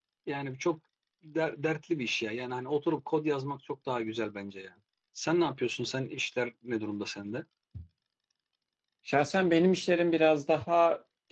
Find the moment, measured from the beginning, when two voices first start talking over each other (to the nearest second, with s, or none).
none